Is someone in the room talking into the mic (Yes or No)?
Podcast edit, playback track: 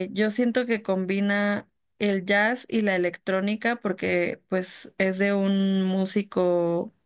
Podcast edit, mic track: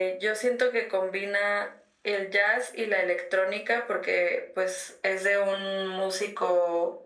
No